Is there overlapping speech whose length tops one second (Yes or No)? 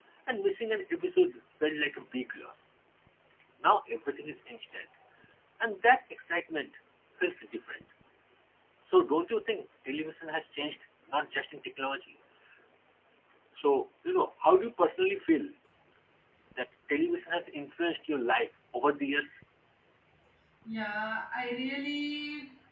No